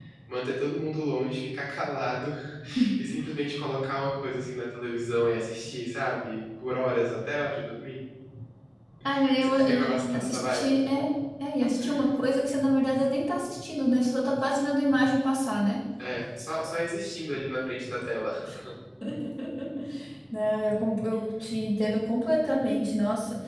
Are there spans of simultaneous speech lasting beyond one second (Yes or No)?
Yes